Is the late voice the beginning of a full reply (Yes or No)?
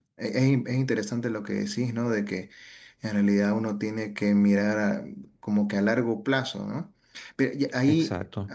No